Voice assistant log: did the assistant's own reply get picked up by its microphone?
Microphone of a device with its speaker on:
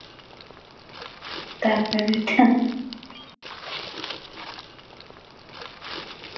No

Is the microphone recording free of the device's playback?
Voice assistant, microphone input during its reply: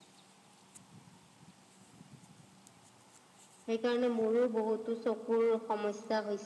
Yes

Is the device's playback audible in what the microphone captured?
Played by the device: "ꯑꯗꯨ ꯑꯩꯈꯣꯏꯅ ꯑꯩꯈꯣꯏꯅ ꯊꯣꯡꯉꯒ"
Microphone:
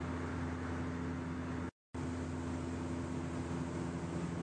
No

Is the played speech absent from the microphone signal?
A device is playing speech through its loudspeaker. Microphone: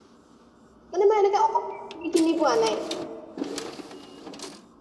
Yes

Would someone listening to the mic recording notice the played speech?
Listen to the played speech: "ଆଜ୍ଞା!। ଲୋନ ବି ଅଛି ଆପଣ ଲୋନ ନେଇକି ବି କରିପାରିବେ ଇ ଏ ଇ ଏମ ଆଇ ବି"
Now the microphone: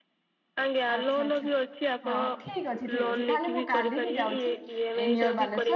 Yes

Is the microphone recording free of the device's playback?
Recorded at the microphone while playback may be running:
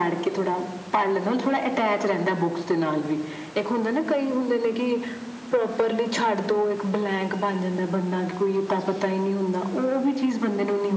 No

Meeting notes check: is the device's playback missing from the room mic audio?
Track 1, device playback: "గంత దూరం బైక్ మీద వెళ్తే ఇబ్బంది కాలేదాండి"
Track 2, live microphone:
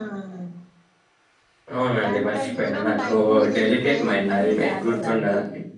No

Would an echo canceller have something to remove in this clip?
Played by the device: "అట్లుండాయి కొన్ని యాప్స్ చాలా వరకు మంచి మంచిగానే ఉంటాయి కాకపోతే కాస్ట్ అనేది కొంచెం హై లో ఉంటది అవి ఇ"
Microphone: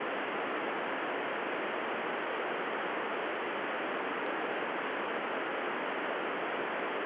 No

